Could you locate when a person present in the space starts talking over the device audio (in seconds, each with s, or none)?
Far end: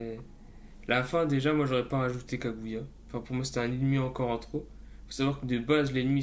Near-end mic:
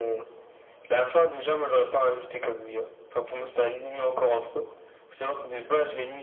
none